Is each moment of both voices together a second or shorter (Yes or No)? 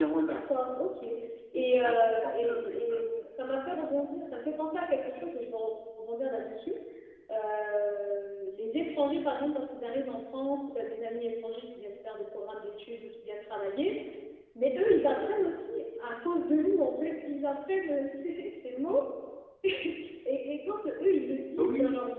No